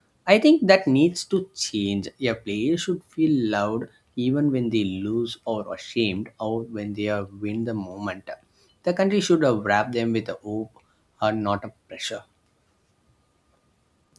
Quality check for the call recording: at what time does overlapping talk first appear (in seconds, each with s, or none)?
none